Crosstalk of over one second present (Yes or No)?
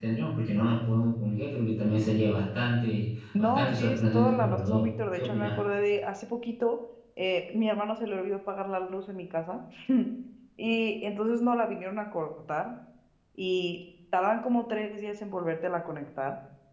Yes